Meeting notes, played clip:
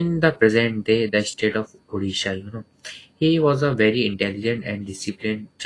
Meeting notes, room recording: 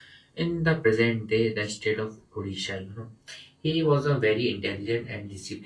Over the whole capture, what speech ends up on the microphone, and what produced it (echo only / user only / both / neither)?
echo only